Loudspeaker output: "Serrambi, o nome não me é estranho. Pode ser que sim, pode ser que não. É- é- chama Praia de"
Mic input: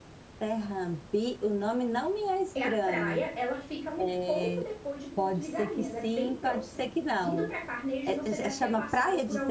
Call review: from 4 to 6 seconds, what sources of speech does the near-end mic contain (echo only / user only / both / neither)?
both